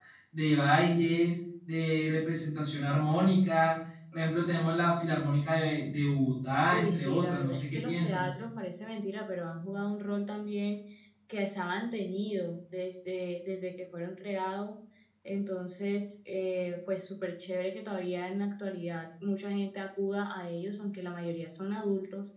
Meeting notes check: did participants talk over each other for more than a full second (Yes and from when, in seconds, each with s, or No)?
Yes, from 6.7 s